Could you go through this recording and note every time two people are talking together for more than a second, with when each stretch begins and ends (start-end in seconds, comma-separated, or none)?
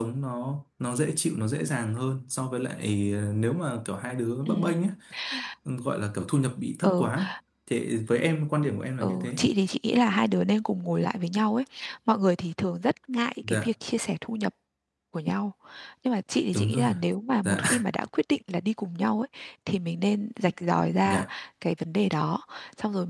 none